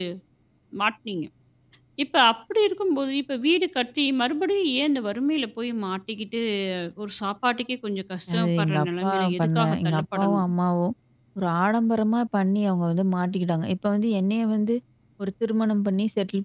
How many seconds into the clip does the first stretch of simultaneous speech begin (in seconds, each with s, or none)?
8.3 s